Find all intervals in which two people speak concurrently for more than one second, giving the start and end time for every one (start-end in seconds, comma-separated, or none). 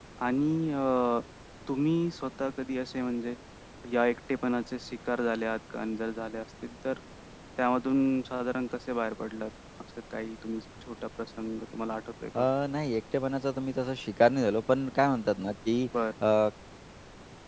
none